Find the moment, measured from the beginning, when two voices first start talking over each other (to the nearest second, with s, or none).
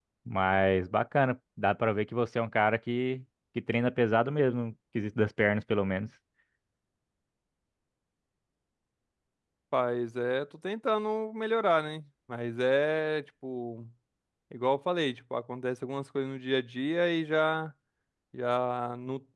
none